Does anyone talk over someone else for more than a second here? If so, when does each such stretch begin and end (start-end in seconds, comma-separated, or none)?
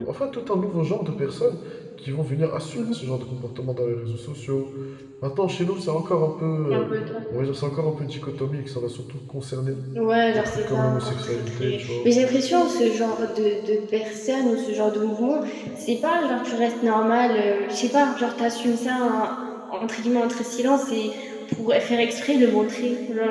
10.3-12.1